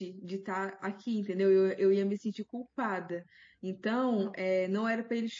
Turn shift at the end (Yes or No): No